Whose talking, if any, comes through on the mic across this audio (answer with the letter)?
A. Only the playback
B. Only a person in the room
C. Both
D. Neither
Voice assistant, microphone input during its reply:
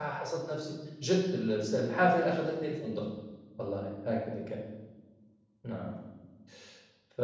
B